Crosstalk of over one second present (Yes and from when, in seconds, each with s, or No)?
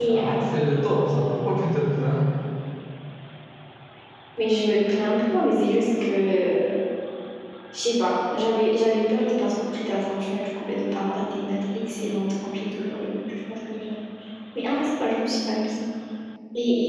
No